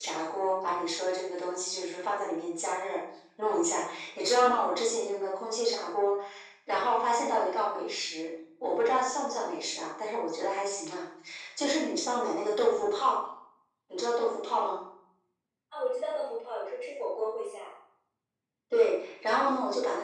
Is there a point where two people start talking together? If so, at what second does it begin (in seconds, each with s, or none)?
none